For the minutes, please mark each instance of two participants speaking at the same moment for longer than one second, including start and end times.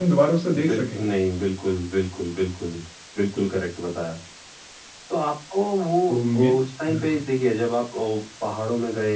none

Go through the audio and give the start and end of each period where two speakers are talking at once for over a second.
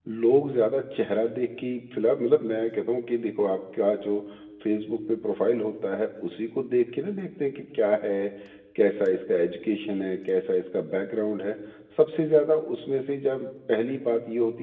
none

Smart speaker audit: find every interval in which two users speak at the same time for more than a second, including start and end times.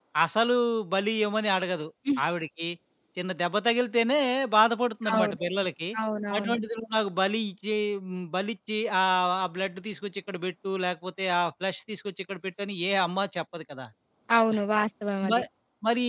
none

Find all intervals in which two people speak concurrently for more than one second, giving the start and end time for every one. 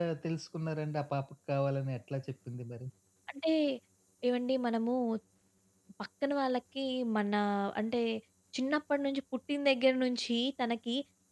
none

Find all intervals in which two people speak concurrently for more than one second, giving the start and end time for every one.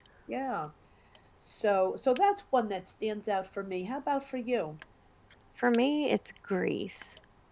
none

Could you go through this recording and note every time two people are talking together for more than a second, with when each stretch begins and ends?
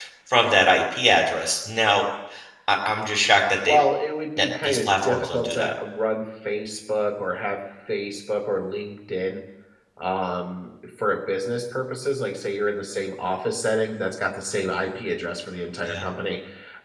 4.4-5.8

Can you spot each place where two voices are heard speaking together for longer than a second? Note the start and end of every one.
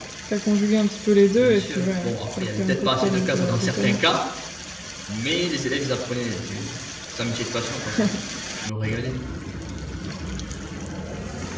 1.4-4.0

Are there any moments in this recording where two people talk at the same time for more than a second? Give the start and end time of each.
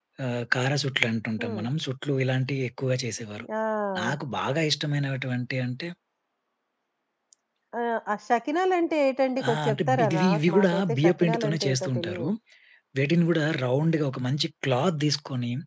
9.5-12.3

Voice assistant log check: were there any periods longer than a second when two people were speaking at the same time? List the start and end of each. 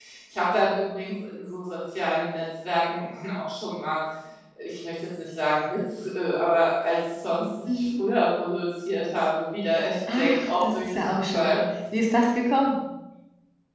10.1-11.6

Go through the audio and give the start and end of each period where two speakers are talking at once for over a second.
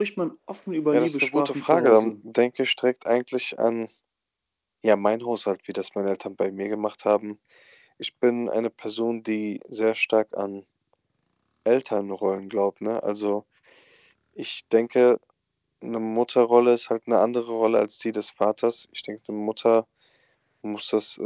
0.9-2.1

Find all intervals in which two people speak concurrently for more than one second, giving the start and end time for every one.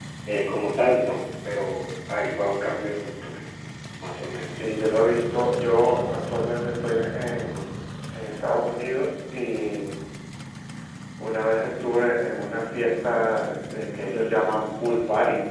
none

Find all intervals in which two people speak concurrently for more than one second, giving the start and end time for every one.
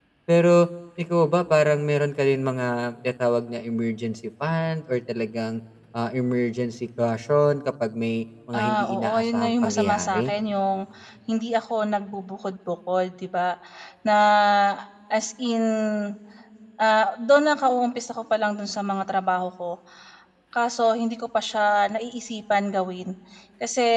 8.6-10.3

